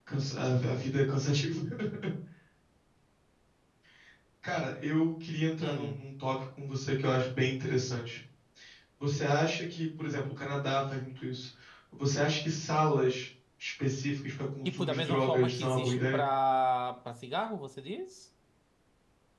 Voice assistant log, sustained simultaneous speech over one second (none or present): present